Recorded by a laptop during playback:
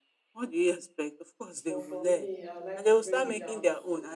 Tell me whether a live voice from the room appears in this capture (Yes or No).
Yes